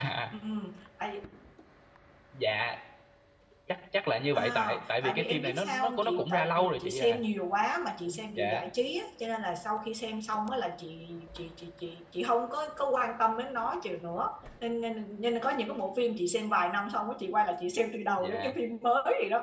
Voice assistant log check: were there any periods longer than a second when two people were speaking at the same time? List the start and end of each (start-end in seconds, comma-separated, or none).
4.3-7.2